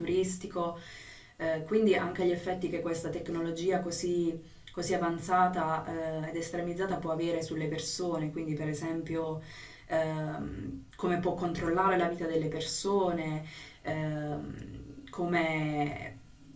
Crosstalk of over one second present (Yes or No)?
No